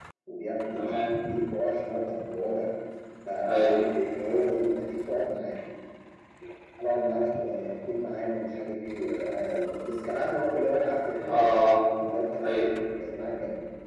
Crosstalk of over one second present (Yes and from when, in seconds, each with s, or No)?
No